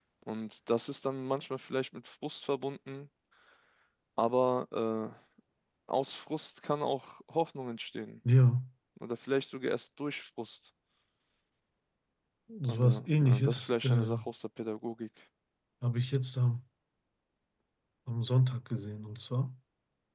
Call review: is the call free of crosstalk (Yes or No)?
No